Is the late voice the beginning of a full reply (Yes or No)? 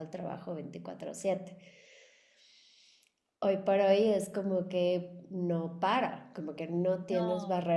No